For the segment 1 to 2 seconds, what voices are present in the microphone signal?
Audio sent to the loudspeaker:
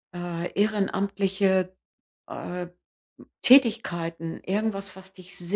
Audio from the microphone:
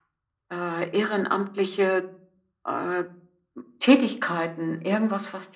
echo only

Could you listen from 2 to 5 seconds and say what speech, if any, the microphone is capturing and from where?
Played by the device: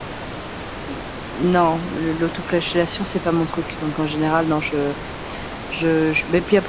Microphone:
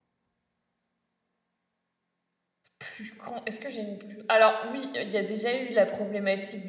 user only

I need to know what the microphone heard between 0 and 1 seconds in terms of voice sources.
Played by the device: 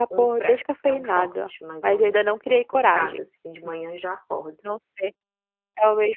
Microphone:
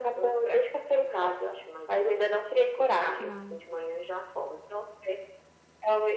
echo only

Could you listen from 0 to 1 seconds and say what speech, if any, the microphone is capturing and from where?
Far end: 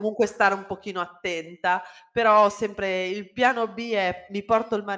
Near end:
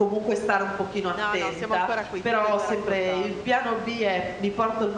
echo only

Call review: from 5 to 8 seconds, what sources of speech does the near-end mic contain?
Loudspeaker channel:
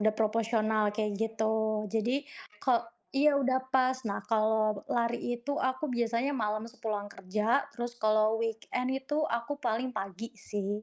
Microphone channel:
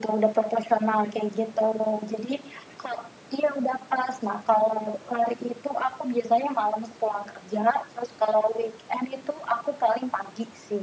echo only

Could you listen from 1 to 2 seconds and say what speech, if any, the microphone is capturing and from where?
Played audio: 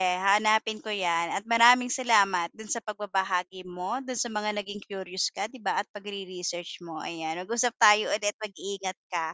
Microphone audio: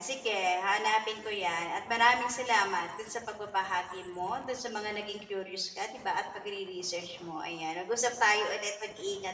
echo only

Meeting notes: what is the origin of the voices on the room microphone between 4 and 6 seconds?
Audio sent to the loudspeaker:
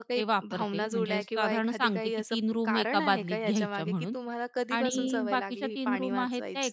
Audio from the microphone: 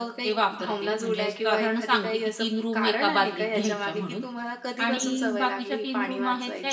echo only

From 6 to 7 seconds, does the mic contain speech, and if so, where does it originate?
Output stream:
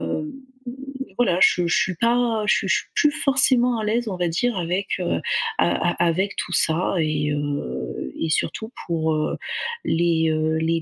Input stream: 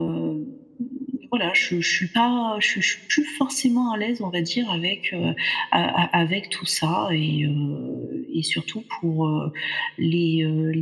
echo only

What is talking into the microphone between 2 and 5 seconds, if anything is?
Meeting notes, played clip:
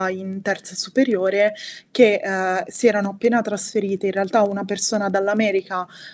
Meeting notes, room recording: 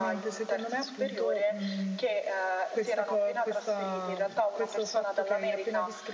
both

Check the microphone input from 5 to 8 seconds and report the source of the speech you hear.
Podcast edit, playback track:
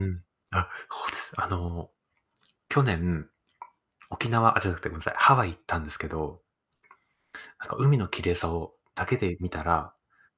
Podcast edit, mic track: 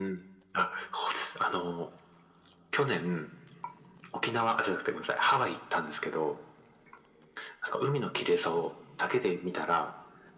echo only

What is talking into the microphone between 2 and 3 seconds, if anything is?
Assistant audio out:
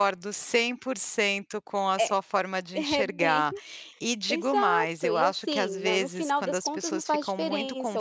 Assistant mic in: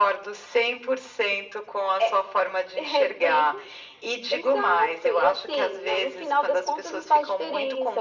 echo only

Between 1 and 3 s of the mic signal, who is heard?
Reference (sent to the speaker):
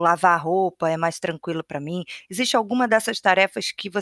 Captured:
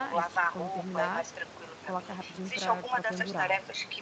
both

